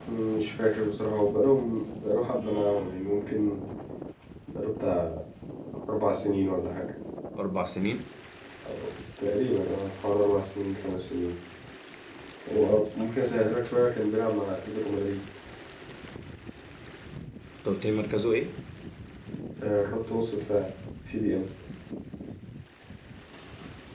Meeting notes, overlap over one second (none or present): none